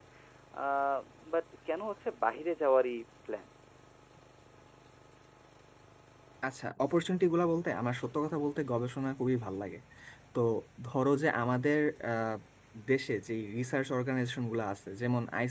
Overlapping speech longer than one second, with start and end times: none

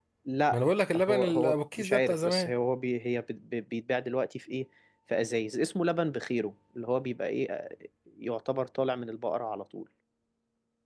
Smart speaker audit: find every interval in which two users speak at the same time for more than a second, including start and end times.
1.1-2.5

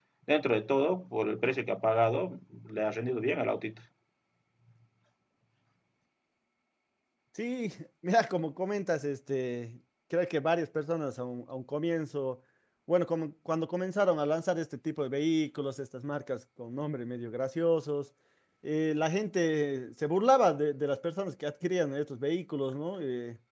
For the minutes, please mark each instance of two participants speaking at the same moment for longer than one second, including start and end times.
none

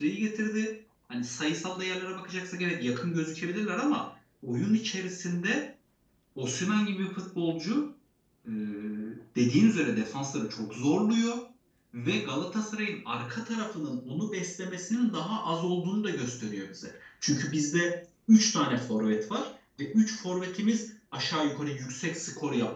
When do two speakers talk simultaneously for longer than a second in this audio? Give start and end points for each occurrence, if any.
none

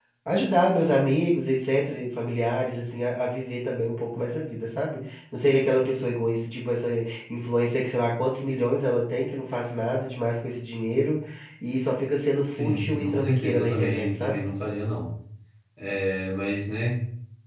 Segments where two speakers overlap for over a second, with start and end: 12.5-14.5

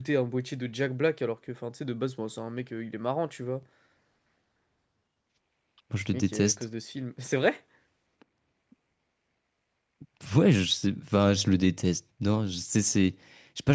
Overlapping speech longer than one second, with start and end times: none

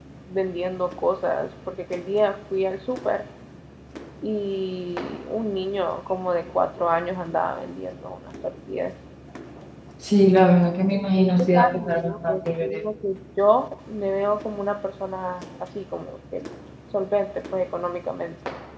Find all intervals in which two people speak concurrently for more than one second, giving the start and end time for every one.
11.2-12.5

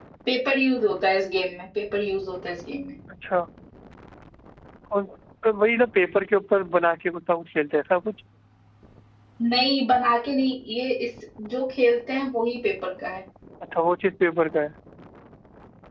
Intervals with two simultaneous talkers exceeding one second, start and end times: none

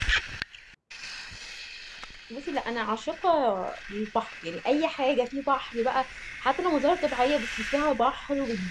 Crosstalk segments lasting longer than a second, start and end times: none

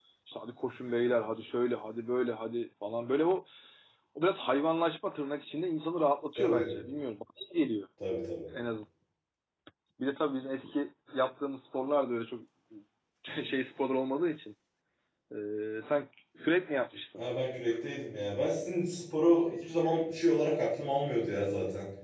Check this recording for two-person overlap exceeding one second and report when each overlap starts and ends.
none

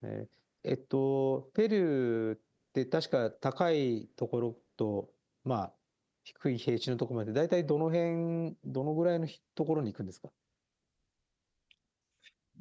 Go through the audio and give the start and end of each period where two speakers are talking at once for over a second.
none

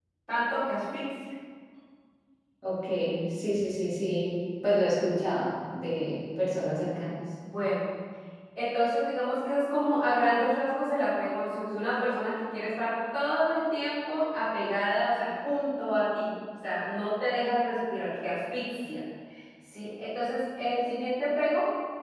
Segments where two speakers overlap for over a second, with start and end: none

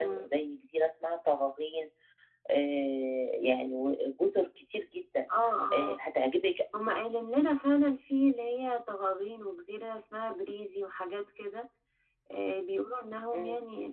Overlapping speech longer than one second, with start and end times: none

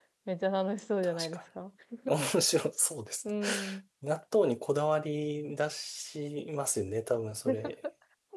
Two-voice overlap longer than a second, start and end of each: none

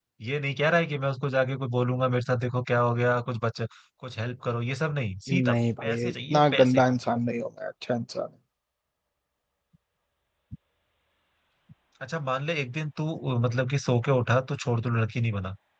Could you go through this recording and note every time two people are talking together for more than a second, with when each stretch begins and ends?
5.3-6.8

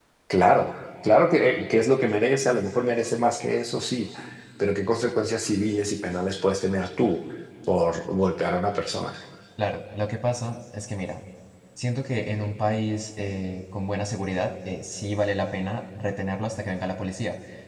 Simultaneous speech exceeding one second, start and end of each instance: none

